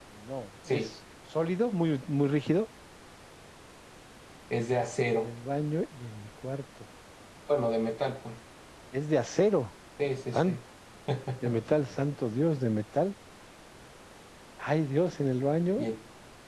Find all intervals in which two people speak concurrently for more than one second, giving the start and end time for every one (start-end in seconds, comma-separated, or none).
none